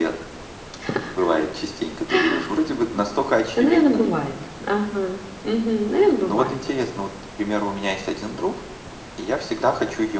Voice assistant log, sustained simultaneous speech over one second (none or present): none